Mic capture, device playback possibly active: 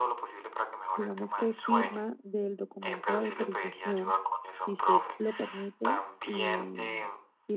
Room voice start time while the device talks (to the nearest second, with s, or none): 1 s